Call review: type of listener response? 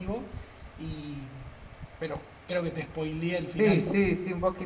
taking over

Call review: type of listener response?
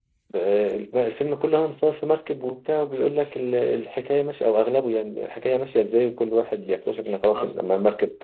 listening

